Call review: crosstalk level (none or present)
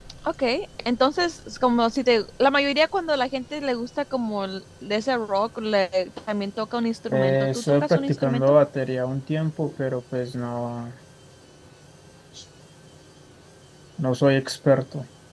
present